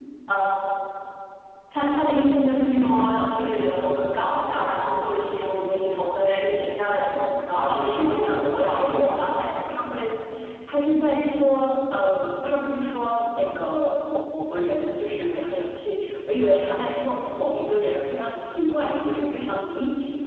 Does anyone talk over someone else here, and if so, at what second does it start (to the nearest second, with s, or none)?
8 s